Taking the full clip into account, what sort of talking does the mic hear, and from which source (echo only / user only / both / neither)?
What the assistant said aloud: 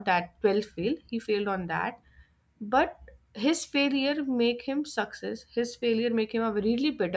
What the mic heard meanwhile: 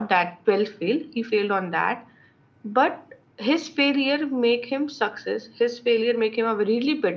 echo only